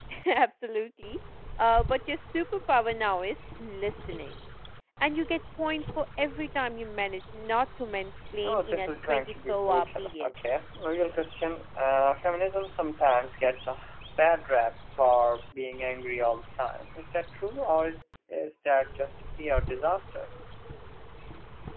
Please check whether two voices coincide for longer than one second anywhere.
Yes, from 8.3 s

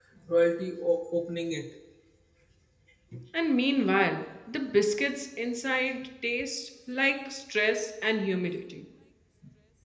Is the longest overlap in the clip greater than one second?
No

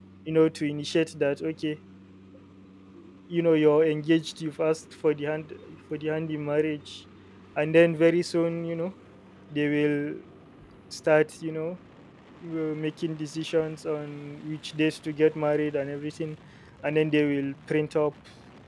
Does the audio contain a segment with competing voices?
No

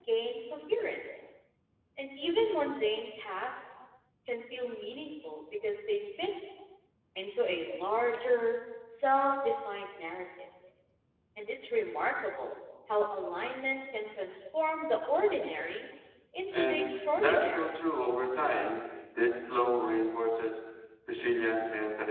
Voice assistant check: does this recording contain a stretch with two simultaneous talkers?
Yes, from 16.5 s

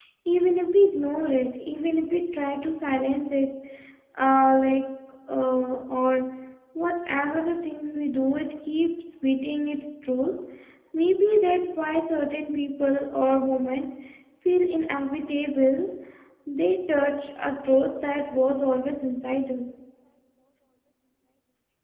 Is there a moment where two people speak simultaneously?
No

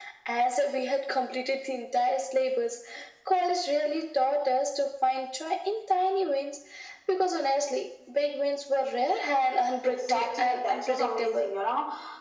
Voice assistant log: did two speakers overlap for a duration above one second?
Yes, from 9.8 s

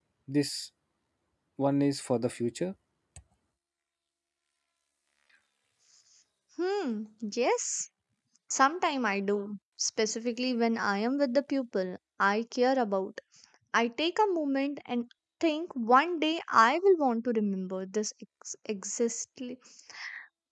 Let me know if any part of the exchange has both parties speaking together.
No

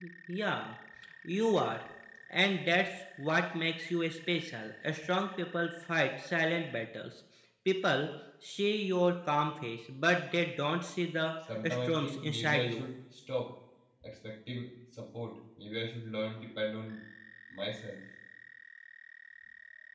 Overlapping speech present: Yes, from 11.6 s

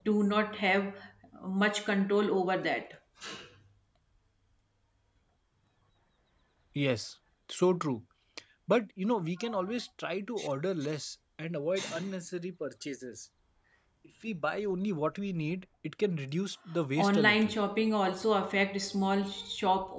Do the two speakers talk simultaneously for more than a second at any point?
No

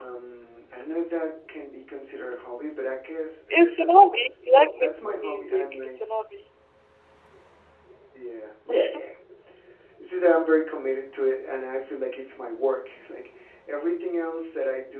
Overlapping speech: Yes, from 3.6 s

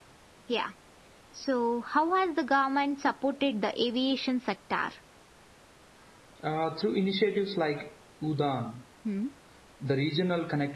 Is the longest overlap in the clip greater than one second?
No

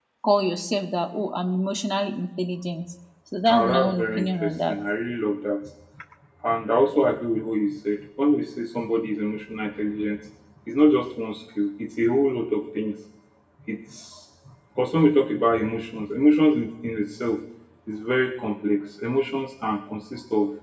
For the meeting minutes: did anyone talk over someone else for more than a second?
Yes, from 3.5 s

